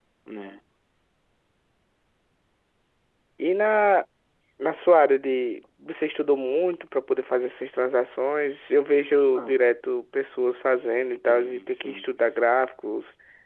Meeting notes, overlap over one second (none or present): present